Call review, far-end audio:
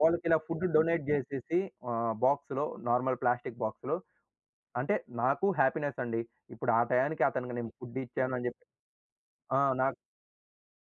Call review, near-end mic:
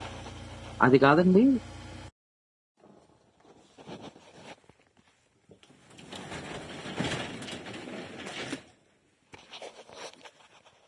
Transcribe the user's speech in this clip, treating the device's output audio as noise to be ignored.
అది కాదండి,

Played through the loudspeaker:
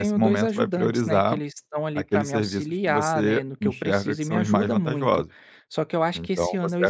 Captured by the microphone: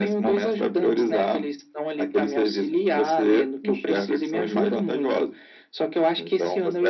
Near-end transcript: none

